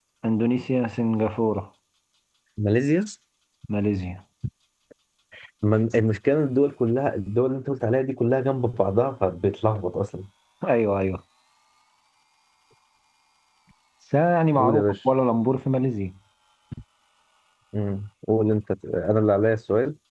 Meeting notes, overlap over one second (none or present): none